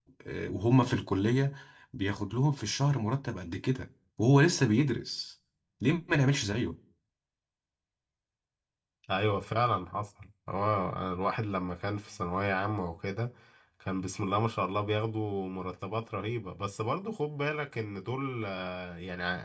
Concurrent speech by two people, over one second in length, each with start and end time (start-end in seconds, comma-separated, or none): none